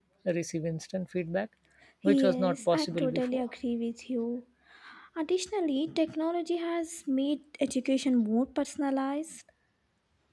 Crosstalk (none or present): present